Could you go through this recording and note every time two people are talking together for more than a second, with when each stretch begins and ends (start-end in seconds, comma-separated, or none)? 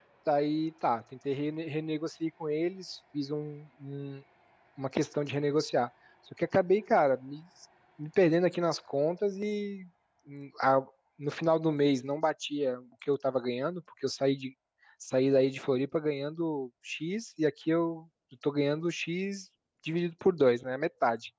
none